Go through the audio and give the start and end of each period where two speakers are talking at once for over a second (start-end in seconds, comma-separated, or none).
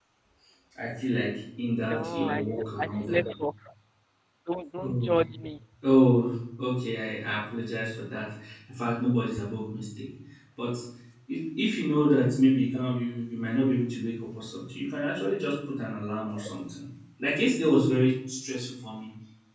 1.9-3.2